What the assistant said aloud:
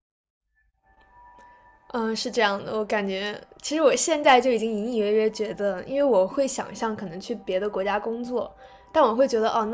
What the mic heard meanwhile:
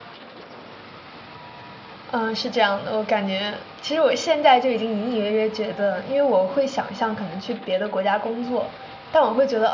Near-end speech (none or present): none